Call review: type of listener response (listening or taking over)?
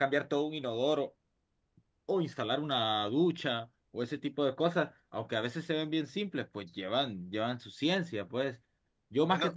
listening